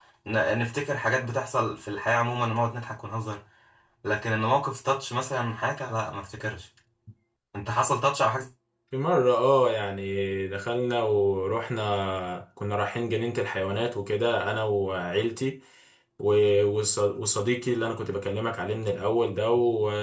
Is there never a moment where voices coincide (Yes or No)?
Yes